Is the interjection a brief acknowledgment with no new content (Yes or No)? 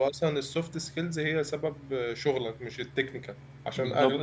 Yes